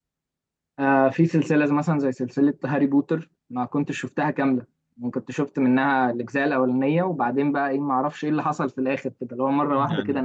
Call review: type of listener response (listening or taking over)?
listening